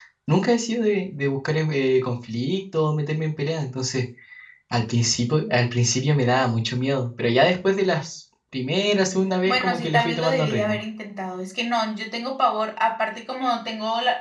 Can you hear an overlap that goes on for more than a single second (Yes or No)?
Yes